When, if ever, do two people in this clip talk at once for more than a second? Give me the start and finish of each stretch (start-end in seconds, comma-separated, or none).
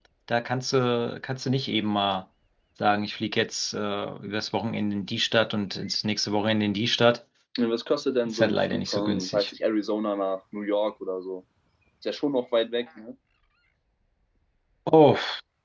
8.2-9.5